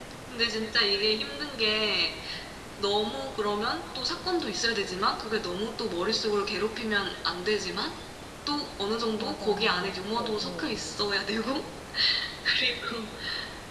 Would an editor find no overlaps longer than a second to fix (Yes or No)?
No